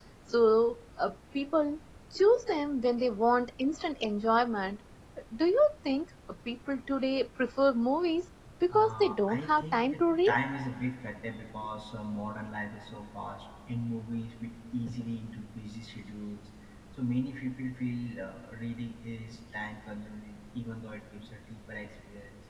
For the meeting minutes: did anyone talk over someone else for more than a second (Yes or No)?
Yes